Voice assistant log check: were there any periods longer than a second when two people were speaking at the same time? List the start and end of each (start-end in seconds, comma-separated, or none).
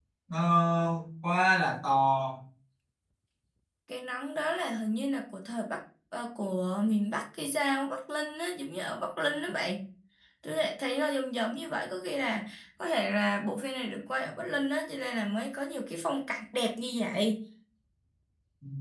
none